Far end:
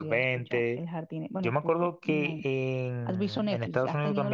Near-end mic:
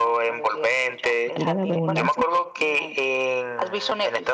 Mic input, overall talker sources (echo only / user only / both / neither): both